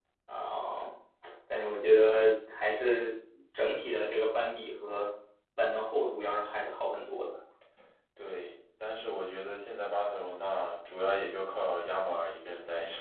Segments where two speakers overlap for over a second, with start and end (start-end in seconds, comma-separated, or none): none